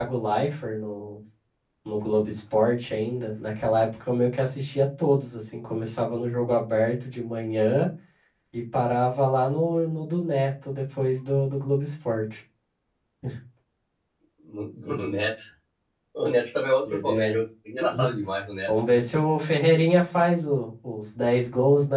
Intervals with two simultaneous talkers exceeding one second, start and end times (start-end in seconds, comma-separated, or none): none